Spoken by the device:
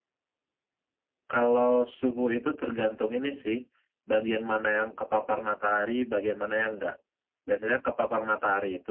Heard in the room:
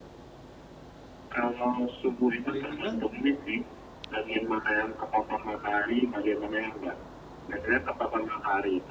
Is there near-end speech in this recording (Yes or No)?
Yes